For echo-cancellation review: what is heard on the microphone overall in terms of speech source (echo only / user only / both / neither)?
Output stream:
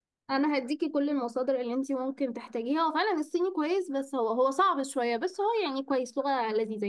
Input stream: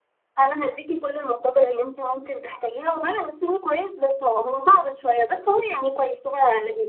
echo only